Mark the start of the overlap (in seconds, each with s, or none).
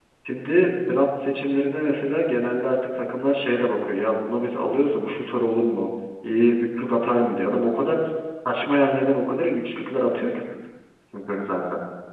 none